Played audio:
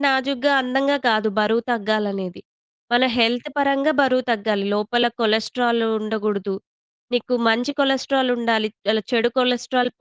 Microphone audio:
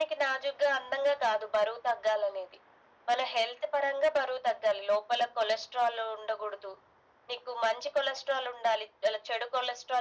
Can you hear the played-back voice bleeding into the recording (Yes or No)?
Yes